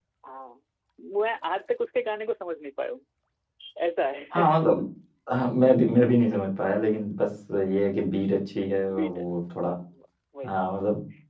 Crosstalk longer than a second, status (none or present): none